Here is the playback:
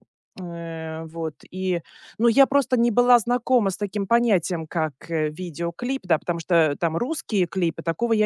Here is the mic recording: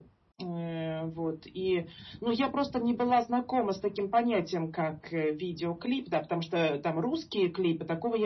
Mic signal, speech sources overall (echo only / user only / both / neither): echo only